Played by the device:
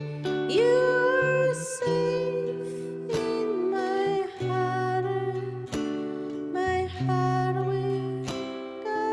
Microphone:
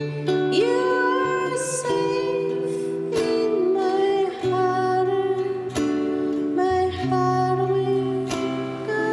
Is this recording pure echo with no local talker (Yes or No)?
Yes